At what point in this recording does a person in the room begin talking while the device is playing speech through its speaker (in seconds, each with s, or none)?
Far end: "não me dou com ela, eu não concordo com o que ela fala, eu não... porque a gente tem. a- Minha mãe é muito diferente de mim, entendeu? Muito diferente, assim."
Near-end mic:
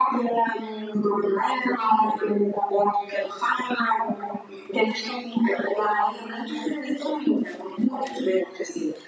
none